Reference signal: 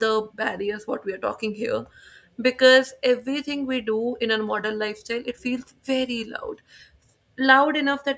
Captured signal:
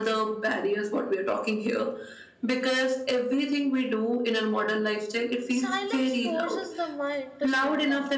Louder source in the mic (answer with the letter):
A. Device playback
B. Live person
A